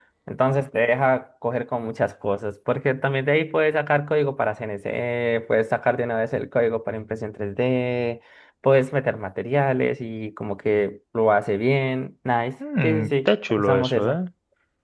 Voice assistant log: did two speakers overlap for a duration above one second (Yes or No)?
Yes